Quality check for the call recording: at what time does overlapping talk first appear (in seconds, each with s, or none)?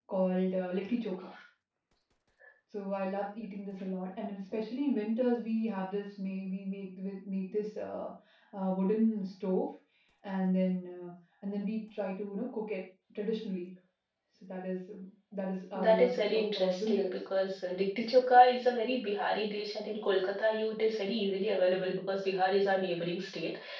15.7 s